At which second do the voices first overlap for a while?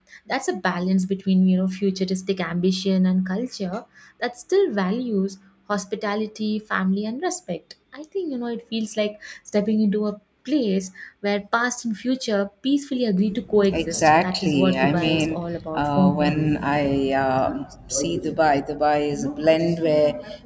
13.5 s

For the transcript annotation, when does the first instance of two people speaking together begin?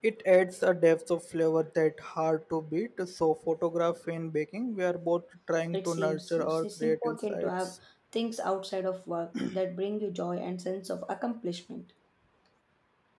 5.7 s

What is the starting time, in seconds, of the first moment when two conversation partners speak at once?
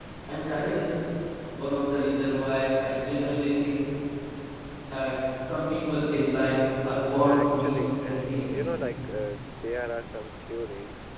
7.2 s

